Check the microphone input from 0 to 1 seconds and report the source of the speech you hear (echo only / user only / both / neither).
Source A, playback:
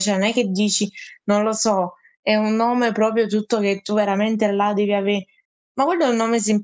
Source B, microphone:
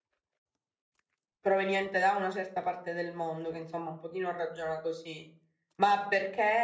neither